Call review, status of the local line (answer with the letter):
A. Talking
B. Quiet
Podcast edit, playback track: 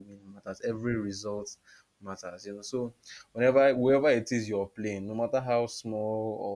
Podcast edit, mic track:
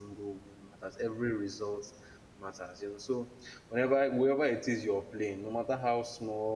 B